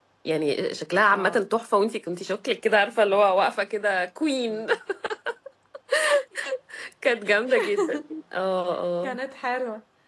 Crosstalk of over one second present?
No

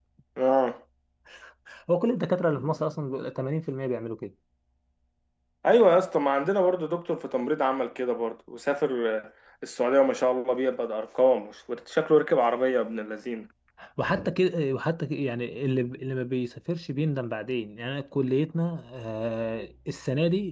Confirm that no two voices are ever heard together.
Yes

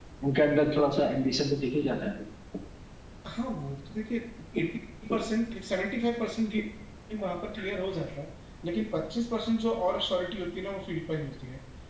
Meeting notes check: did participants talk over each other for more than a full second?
No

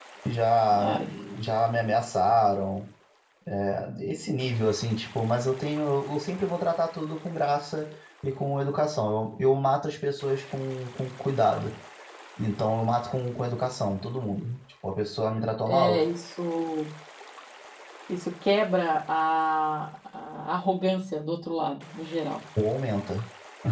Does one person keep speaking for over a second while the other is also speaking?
No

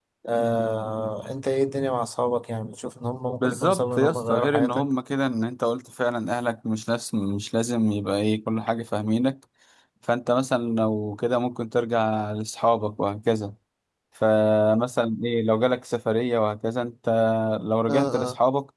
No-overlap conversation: No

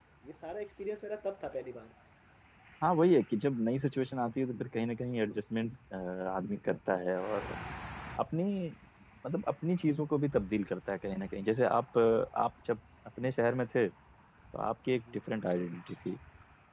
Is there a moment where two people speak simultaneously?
No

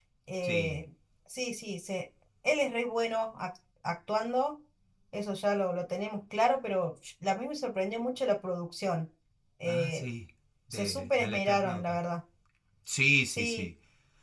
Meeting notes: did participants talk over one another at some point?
Yes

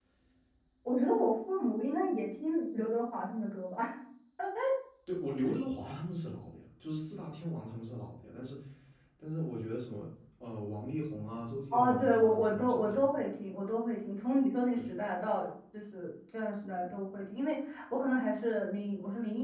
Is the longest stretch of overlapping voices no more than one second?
No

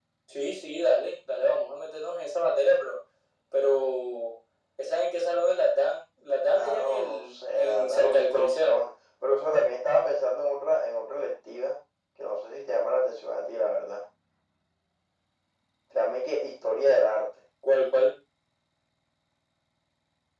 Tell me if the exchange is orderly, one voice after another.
No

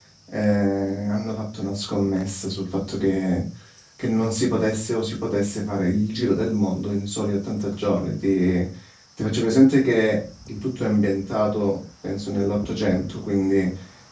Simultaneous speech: No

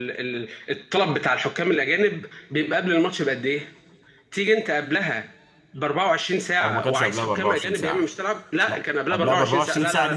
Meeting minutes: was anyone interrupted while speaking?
Yes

